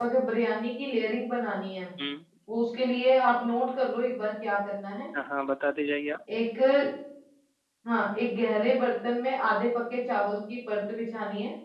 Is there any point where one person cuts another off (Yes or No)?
No